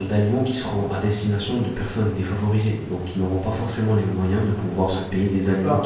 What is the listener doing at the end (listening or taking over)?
taking over